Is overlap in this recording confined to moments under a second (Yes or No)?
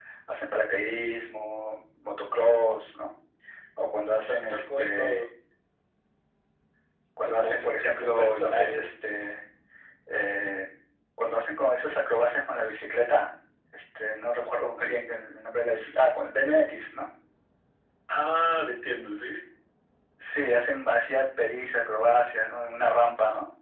No